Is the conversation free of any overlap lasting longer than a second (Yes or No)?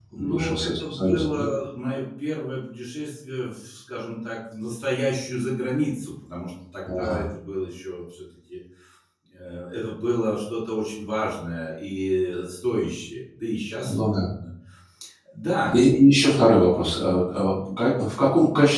No